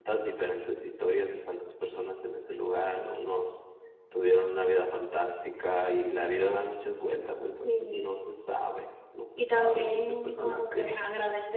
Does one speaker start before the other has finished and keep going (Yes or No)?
Yes